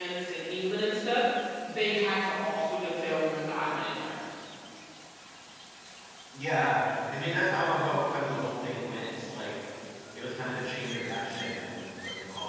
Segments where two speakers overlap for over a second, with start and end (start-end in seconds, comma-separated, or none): none